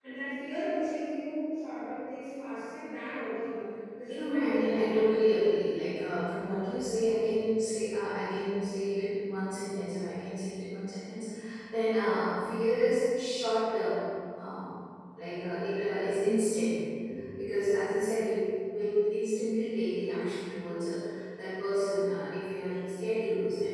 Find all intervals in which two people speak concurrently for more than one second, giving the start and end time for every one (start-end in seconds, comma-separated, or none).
4.1-5.3